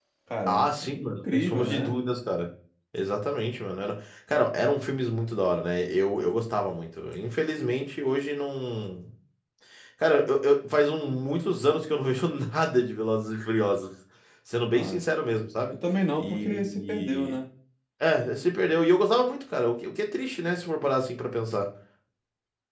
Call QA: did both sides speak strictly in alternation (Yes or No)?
No